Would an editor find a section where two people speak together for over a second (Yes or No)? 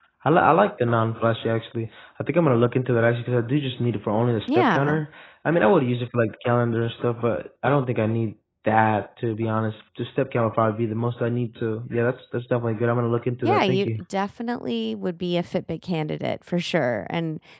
No